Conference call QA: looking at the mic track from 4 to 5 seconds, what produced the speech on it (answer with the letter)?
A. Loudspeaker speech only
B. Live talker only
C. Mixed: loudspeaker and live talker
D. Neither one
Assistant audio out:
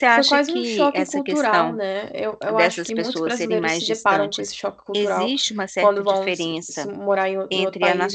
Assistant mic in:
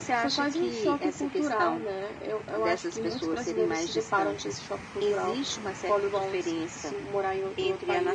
A